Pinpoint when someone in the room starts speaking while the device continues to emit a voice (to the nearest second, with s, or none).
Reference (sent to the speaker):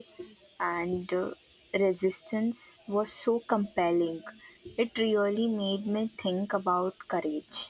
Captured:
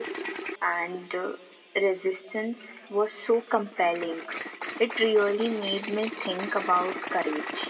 none